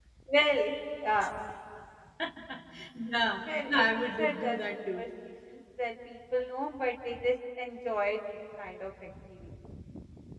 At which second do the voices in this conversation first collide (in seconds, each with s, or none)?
3.7 s